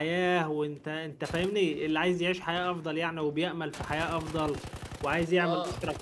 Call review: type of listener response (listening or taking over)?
listening